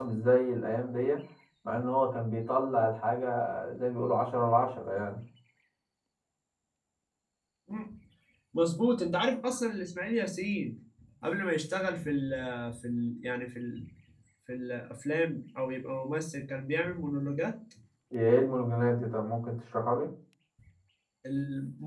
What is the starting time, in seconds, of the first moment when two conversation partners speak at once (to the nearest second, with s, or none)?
none